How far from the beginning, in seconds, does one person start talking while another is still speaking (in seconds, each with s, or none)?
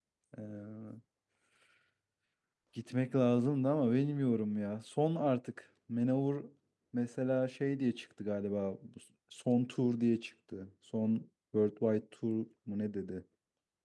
none